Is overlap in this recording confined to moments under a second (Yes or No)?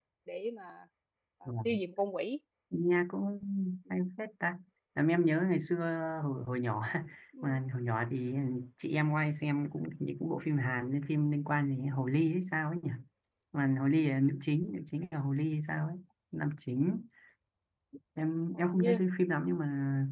Yes